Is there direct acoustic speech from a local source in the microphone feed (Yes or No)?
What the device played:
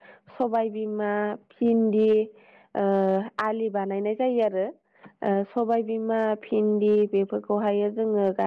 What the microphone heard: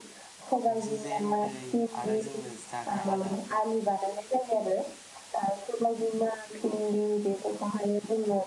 Yes